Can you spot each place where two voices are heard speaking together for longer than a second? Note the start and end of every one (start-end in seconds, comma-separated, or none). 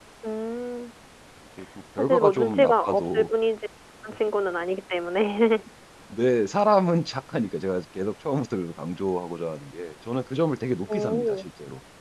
2.0-3.3